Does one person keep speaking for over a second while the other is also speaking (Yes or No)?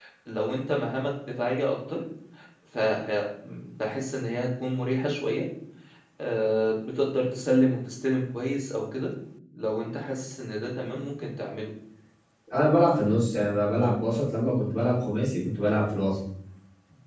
No